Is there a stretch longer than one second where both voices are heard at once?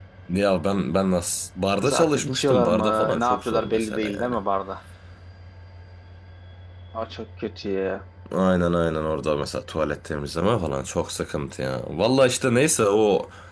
Yes, from 1.8 s

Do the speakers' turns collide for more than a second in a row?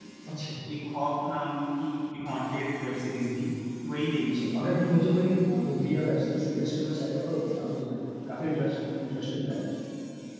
No

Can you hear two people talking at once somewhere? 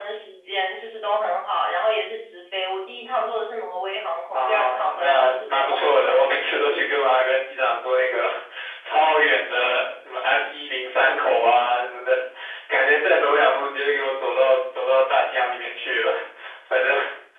Yes, from 4.3 s

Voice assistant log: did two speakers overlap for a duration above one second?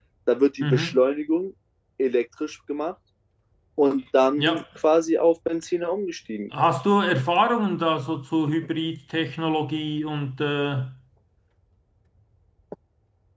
No

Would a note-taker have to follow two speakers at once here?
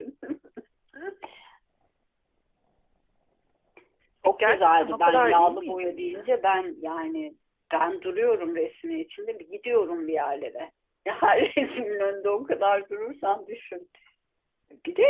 Yes, from 4.5 s

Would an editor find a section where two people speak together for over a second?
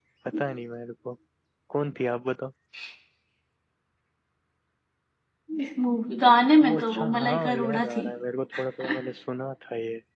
Yes, from 6.6 s

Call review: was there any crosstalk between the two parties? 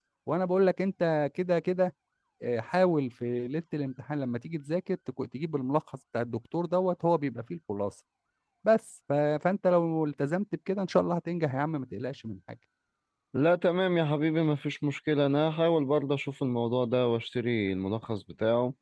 No

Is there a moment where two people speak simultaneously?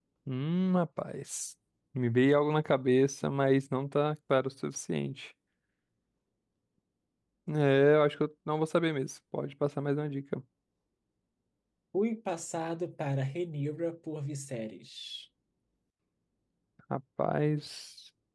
No

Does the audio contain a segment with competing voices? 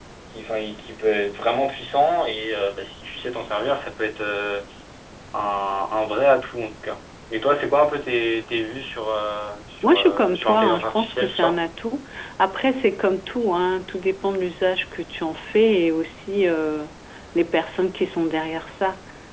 Yes, from 9.8 s

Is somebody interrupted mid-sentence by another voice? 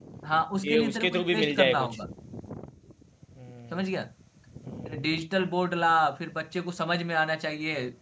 Yes, from 0.6 s

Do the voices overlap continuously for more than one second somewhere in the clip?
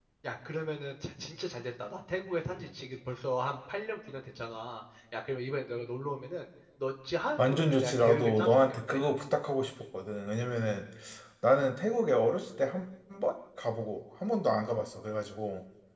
Yes, from 7.4 s

